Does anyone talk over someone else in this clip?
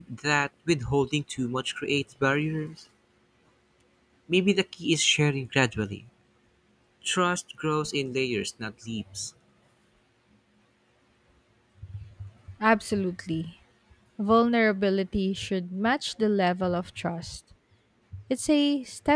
No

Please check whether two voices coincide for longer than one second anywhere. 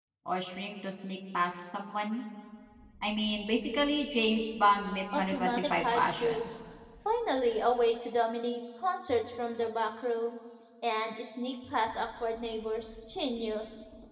Yes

